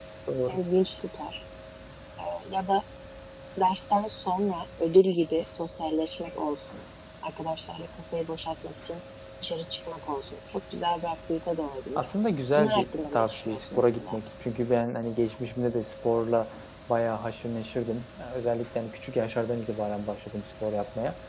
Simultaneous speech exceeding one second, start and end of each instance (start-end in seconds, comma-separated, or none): 12.6-14.2